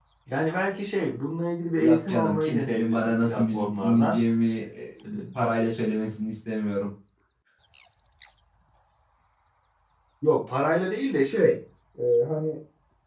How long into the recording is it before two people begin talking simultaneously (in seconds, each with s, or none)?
1.7 s